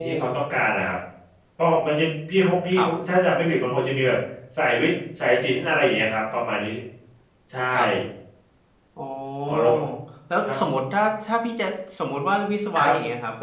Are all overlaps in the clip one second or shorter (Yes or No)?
Yes